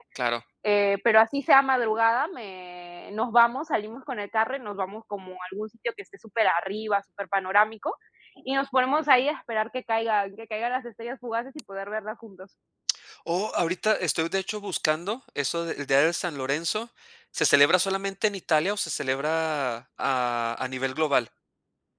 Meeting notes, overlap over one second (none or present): none